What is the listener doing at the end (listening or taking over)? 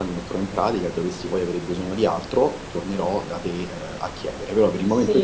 taking over